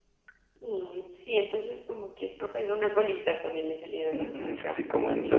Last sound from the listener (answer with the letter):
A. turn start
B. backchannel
A